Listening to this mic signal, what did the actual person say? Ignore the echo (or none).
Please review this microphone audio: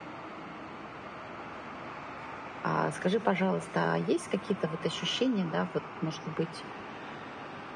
А скажи, пожалуйста, а есть какие-то вот ощущения, да, вот, может быть,